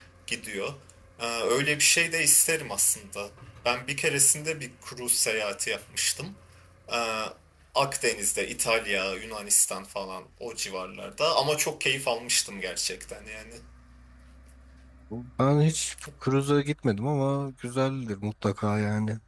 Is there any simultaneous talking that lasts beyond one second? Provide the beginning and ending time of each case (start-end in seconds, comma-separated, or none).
none